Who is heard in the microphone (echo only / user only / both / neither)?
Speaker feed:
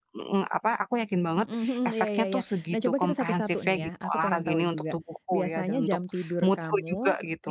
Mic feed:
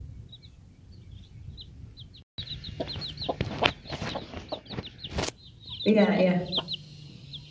user only